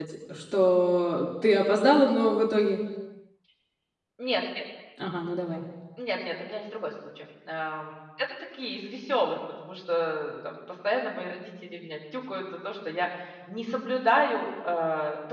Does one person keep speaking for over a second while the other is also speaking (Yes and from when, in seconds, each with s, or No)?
No